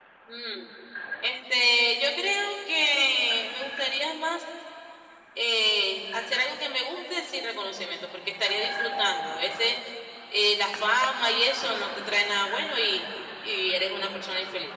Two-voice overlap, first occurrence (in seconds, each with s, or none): none